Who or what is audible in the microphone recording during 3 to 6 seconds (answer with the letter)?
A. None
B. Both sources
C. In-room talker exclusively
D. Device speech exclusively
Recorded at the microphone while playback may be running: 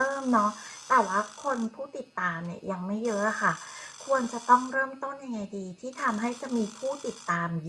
C